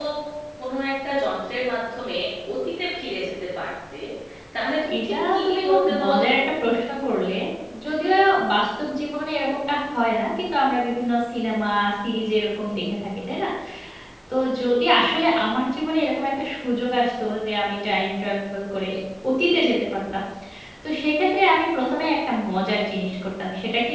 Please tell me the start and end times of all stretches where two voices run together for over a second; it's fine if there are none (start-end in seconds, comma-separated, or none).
5.0-6.3